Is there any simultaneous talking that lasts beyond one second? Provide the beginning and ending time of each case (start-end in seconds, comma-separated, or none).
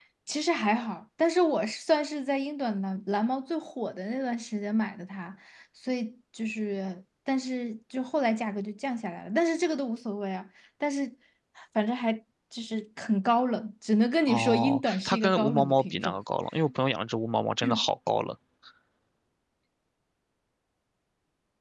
14.3-16.2